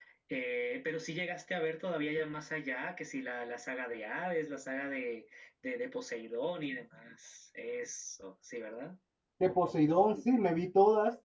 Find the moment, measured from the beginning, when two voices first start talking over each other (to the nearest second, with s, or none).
none